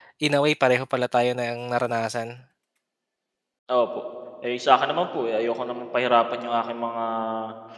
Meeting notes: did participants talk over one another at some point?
No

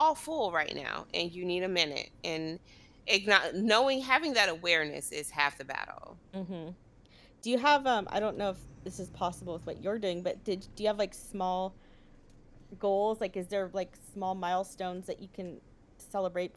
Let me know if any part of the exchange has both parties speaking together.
No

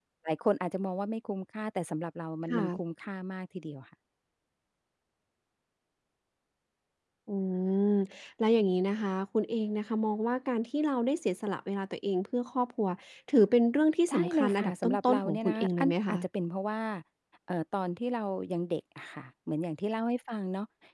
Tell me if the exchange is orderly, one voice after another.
No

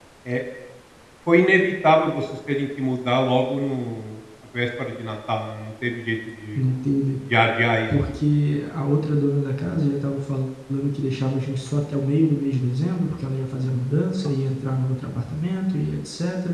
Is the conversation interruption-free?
Yes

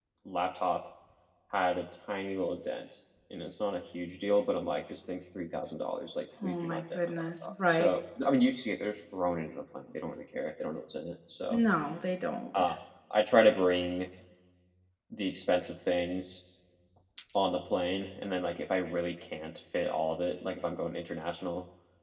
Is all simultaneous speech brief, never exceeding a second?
No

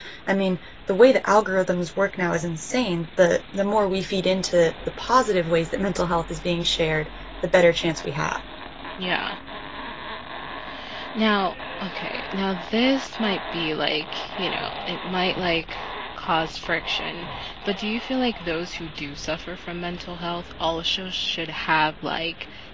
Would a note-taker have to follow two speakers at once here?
No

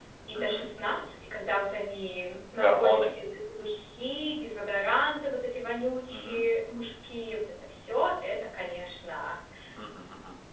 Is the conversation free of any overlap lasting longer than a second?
Yes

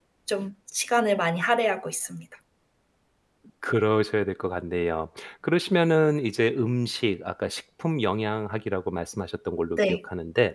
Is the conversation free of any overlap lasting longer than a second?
Yes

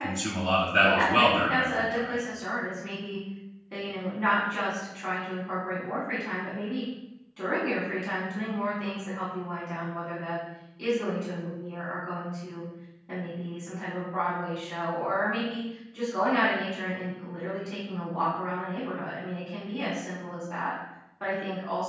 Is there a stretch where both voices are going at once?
Yes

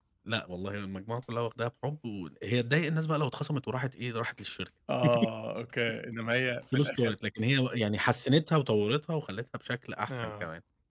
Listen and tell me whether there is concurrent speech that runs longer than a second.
No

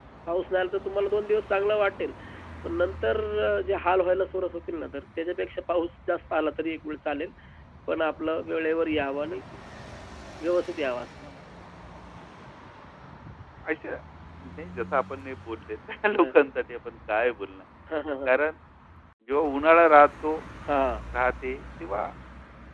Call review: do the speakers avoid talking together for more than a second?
Yes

